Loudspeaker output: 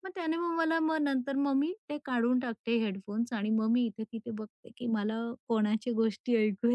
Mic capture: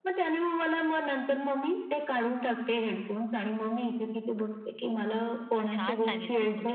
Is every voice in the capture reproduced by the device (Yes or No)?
No